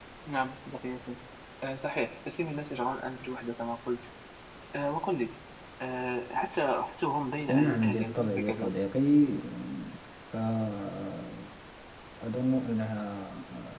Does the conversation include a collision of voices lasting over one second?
Yes, from 7.5 s

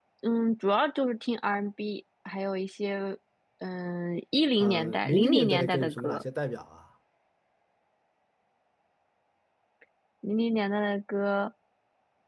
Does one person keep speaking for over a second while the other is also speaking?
Yes, from 4.6 s

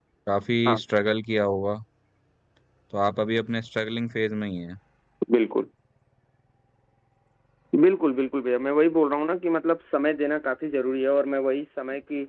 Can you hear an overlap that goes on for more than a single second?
No

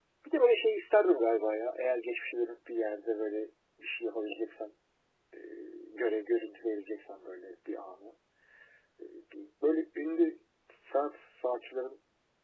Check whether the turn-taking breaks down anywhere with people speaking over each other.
No

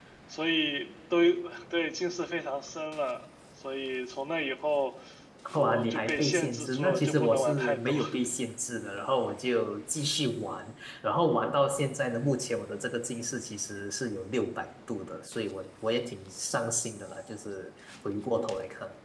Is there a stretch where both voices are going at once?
Yes, from 5.5 s

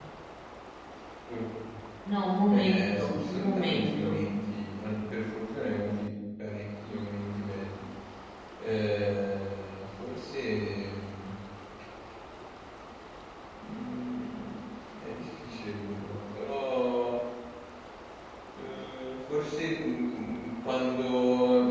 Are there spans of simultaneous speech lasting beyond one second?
Yes, from 2.5 s

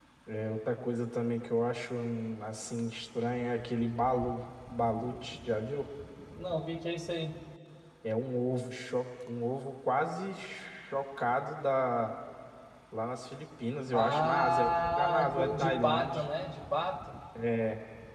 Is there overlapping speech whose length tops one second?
Yes, from 13.9 s

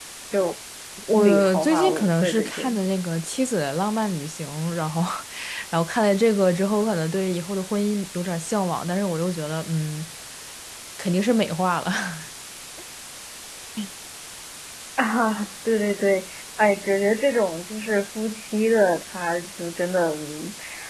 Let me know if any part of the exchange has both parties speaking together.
Yes, from 1.1 s

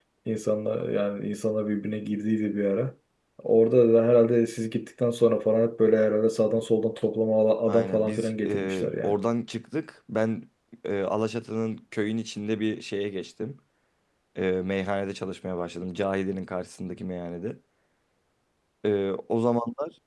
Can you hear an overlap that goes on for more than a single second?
Yes, from 7.7 s

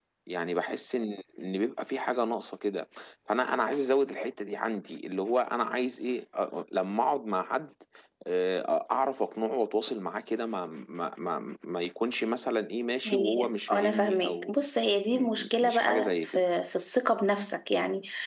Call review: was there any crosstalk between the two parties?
Yes, from 13.1 s

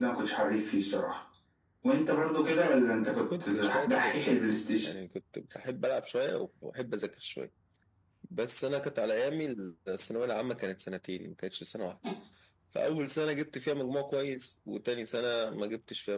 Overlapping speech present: Yes, from 3.0 s

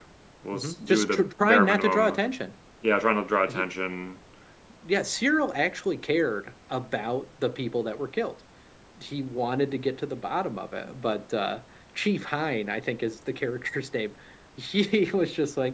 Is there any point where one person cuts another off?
Yes, from 0.5 s

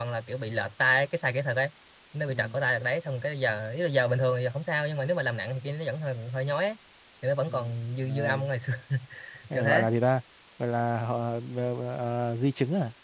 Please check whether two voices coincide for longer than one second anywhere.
No

